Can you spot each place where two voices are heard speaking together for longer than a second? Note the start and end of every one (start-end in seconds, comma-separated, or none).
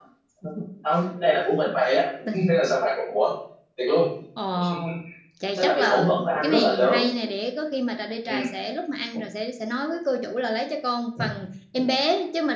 5.6-7.0